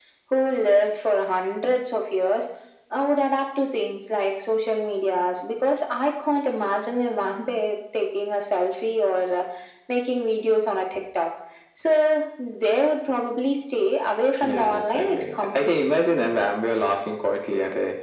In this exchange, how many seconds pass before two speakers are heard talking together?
14.4 s

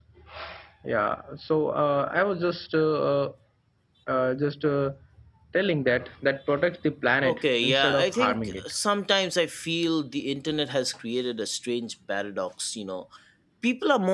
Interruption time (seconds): 7.2 s

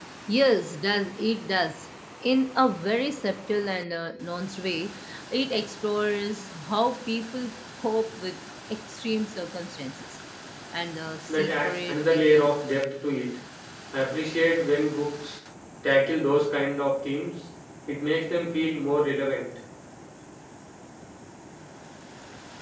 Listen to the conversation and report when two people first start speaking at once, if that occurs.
11.3 s

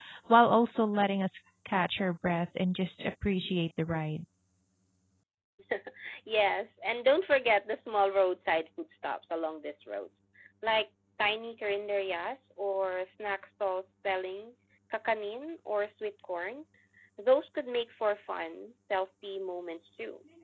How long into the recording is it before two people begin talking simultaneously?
none

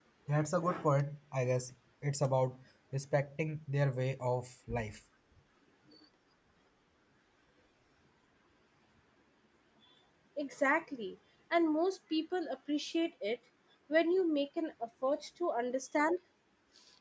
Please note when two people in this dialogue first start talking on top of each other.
none

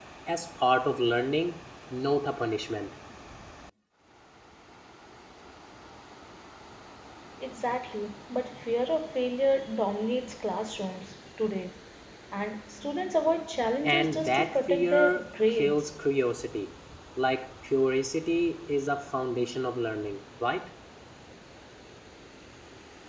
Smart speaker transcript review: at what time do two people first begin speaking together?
13.8 s

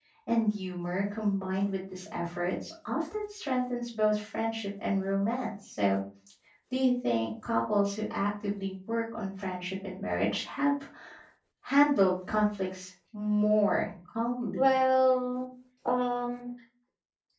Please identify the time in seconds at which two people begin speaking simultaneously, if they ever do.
none

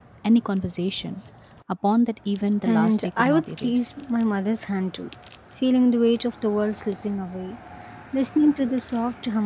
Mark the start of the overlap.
2.6 s

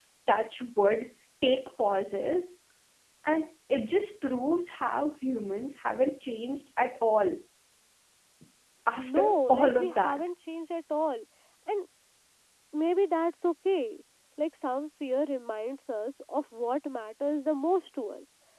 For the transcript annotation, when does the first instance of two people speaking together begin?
9.0 s

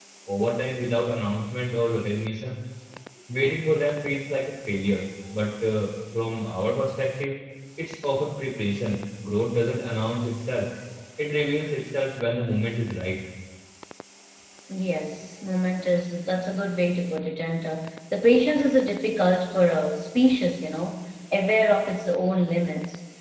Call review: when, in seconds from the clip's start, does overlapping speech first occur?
none

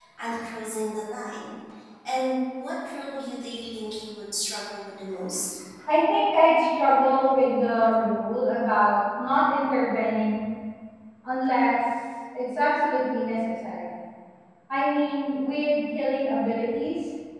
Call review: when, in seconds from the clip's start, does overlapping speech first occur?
none

